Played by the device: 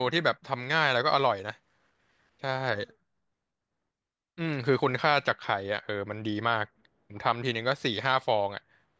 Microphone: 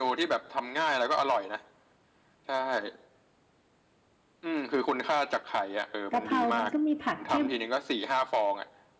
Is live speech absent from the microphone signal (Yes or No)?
No